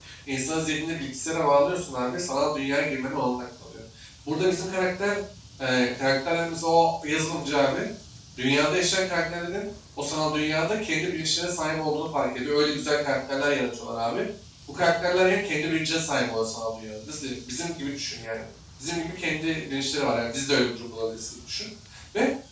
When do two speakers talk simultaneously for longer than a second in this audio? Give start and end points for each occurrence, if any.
none

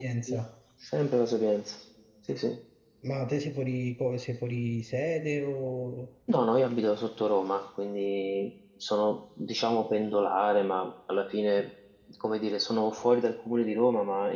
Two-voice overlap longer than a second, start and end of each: none

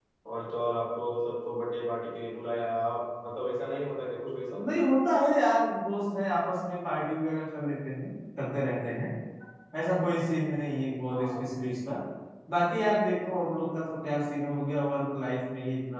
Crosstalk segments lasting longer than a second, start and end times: none

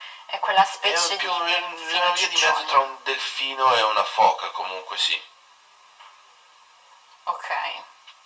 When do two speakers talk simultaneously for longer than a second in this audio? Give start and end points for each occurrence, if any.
0.8-2.9

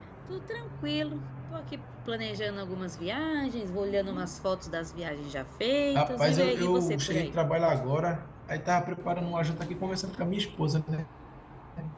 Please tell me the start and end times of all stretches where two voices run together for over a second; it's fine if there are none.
5.9-7.4

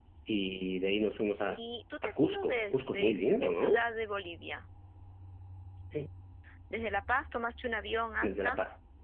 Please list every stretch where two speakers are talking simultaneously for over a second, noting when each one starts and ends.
2.0-3.8

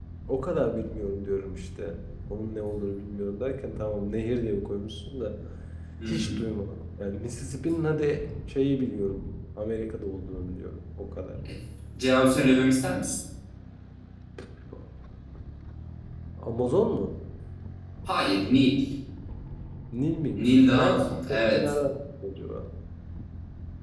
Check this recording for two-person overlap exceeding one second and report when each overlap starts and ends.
20.4-21.7

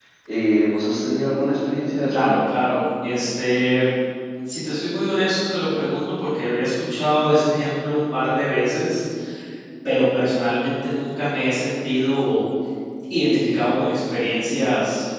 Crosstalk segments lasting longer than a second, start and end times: none

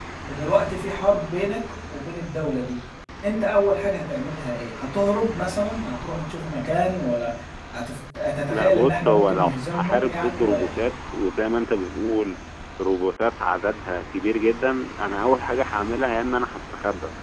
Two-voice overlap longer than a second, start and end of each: 8.5-10.8

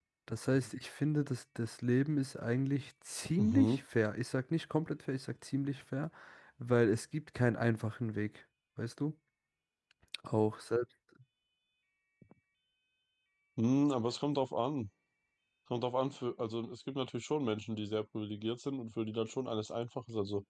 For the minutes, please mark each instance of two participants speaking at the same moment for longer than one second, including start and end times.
none

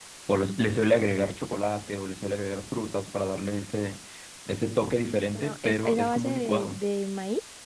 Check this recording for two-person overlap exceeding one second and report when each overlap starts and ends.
5.3-6.8

